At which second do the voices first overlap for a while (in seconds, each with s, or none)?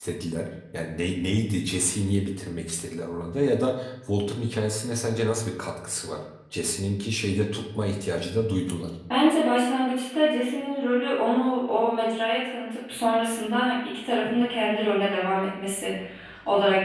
none